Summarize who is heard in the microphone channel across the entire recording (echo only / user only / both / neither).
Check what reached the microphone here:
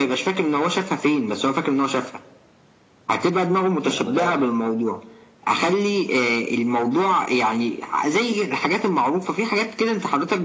both